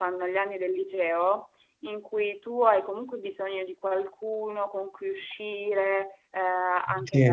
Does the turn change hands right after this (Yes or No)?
No